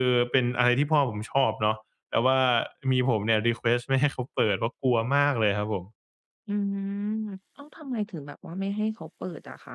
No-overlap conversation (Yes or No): Yes